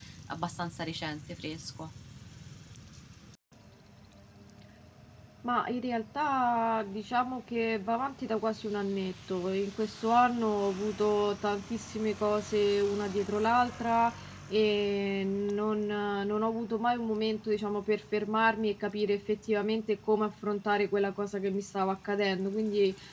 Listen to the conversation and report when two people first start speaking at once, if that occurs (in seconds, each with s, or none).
none